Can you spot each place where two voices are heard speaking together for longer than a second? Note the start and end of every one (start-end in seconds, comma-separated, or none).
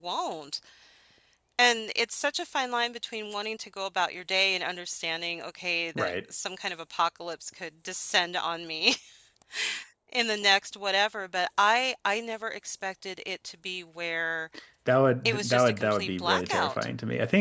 15.2-16.8